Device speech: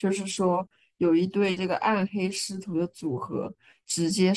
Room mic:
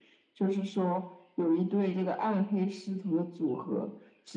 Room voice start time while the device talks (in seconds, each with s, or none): none